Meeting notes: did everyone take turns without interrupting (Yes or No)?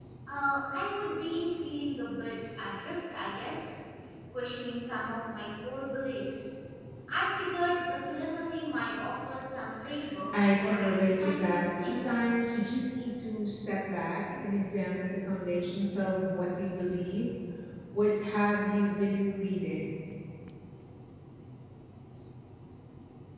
No